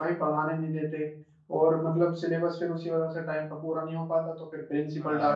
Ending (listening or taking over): taking over